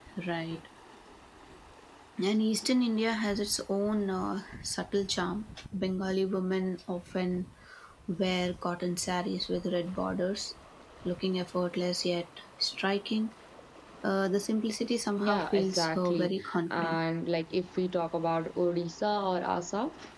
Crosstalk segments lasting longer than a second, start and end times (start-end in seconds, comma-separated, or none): 15.2-17.0